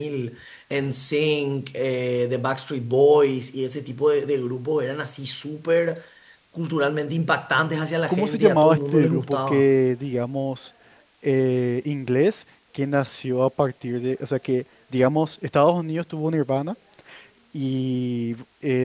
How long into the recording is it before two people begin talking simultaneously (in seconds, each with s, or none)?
8.1 s